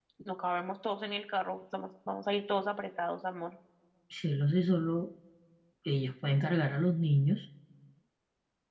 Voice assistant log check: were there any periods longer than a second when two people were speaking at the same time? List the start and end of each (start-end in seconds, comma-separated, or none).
none